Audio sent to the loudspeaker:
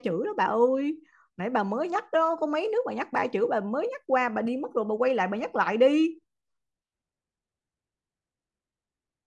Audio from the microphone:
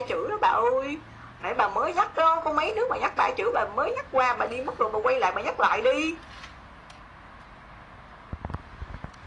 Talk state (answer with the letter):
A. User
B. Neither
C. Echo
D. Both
C